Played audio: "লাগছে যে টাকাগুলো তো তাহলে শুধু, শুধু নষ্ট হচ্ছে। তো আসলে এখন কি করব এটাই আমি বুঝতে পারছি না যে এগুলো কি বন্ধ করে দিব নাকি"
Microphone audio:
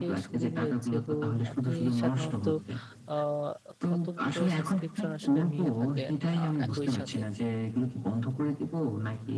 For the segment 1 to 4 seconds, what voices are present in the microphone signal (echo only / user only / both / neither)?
both